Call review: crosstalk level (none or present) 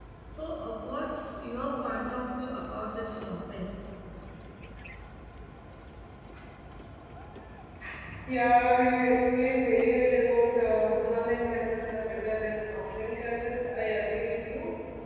none